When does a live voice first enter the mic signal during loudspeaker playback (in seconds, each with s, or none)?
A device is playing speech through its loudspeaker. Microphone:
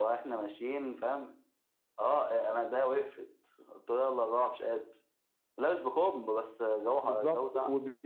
7.0 s